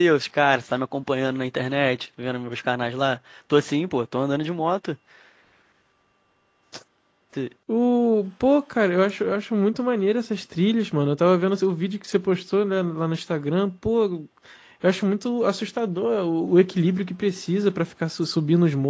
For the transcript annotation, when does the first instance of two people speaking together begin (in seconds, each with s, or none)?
none